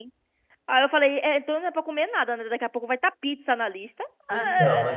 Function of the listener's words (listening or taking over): taking over